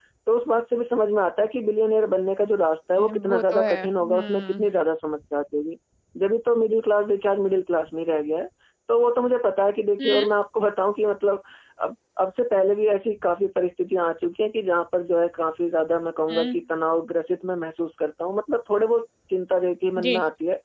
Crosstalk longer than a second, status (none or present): present